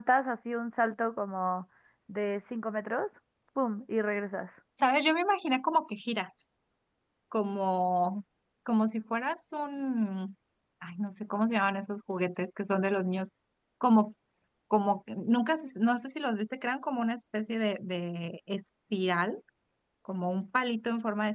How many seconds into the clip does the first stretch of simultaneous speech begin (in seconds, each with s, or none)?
none